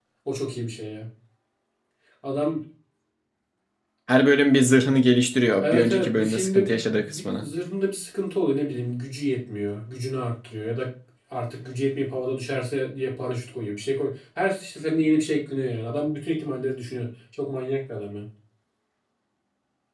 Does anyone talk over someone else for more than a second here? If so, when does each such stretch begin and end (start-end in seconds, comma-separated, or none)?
5.6-7.5